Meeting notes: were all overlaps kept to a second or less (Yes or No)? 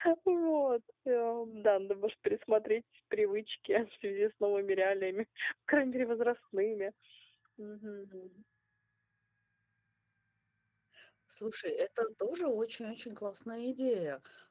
Yes